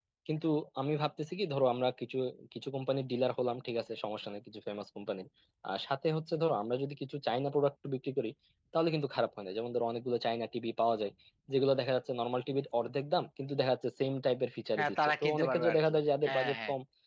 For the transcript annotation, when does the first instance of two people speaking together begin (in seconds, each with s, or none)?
14.8 s